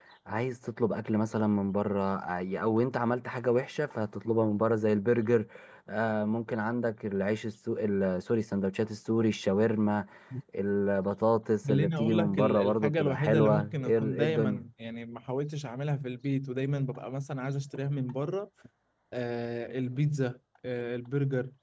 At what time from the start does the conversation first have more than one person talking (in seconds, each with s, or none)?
11.6 s